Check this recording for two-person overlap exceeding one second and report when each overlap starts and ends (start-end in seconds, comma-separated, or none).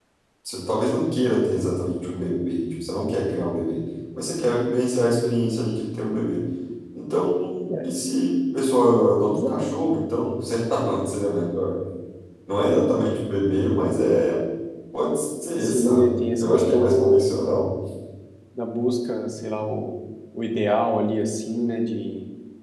15.6-17.3